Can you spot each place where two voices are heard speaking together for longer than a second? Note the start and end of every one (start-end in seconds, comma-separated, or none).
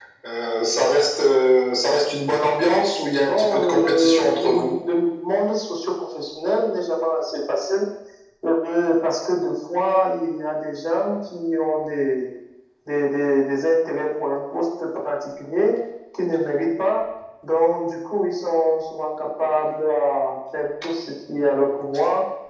3.3-4.7